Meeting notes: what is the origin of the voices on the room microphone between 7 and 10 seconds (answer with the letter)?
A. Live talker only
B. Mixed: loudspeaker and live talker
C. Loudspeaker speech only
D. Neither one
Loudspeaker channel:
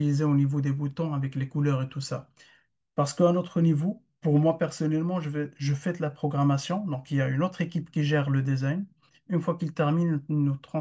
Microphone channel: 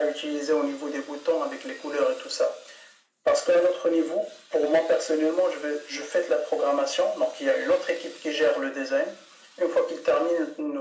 C